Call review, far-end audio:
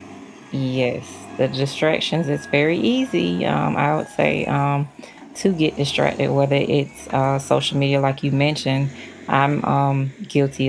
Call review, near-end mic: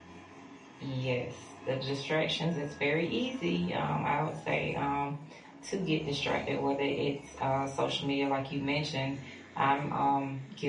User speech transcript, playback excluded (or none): none